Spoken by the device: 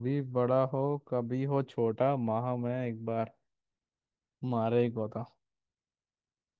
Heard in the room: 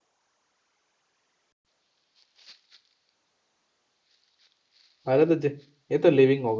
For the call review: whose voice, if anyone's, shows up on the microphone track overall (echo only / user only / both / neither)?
user only